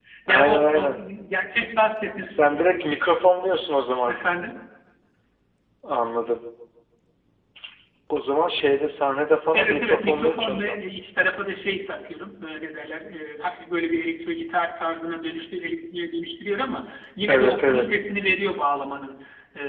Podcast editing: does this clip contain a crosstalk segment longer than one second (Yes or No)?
Yes